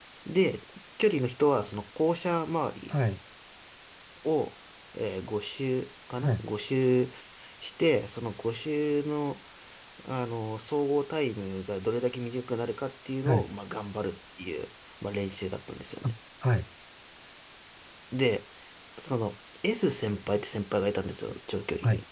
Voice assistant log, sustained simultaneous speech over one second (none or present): none